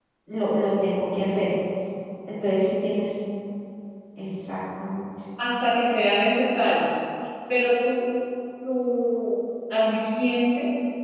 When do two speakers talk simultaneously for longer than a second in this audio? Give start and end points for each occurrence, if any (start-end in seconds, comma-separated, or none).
none